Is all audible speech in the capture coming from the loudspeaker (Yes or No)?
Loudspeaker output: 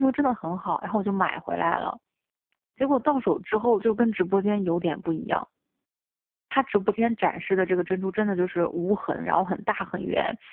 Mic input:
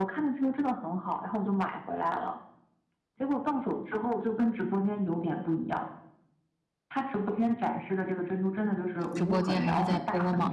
No